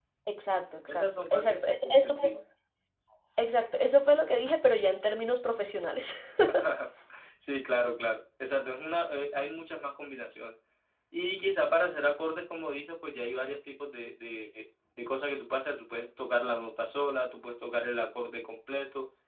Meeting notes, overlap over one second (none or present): present